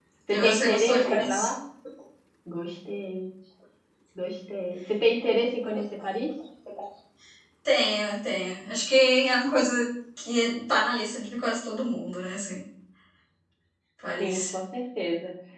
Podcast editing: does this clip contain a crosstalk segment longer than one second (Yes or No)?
Yes